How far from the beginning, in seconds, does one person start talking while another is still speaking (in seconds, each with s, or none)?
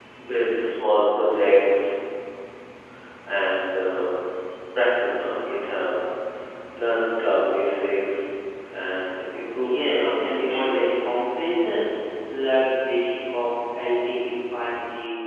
9.6 s